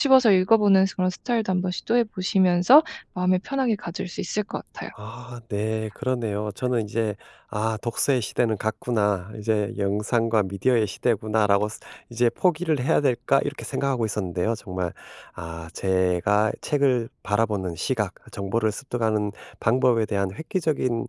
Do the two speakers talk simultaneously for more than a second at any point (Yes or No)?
No